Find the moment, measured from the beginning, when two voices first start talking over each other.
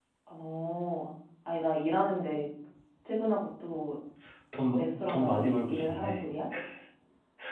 4.7 s

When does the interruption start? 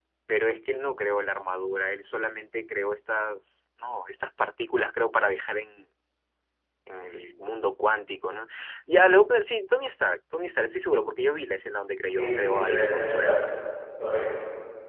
12.1 s

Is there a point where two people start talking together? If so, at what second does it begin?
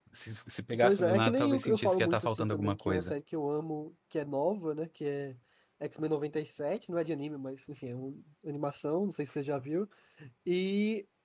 0.8 s

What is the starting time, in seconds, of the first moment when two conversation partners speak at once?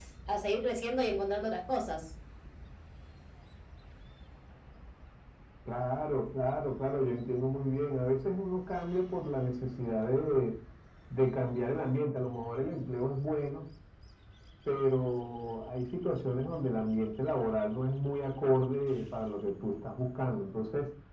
none

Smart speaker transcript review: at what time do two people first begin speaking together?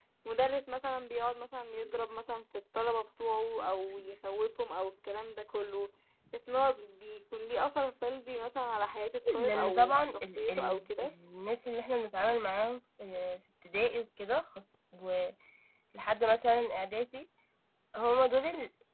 9.3 s

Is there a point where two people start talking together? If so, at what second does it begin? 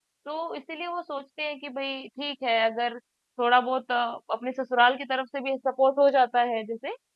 none

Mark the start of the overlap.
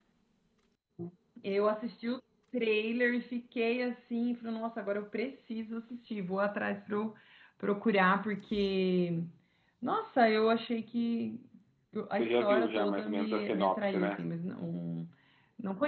12.1 s

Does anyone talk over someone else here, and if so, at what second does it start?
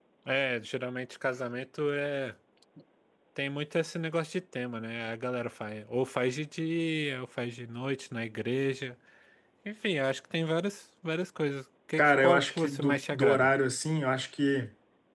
12.0 s

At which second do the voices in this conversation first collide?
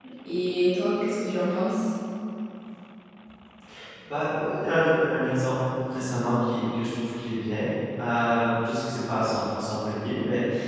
none

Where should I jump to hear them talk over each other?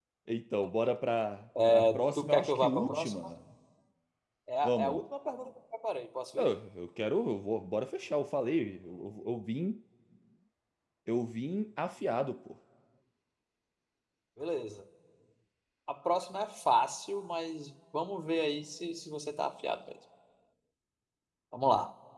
1.7 s

